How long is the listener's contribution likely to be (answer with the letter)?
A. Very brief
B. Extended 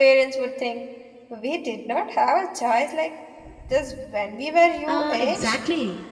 B